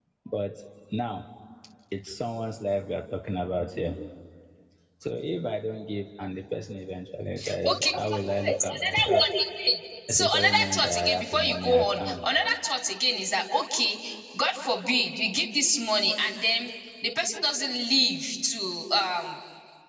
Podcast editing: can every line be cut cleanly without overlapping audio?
No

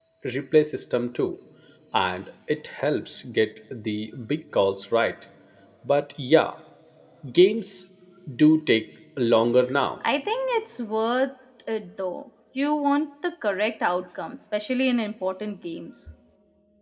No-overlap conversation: Yes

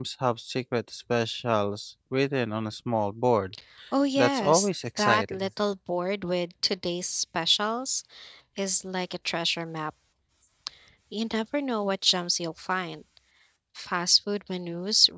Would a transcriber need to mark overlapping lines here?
Yes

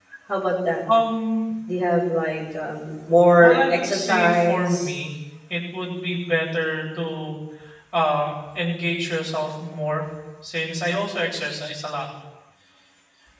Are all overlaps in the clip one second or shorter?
No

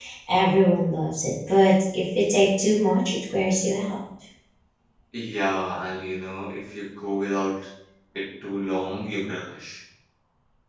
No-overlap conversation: Yes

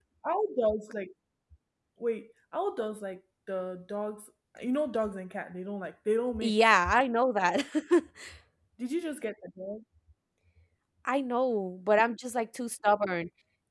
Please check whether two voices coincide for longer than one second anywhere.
No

